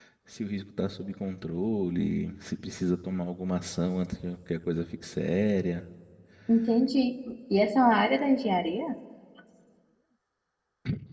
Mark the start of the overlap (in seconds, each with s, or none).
none